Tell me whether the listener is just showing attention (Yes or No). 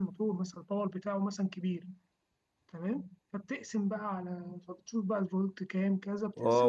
No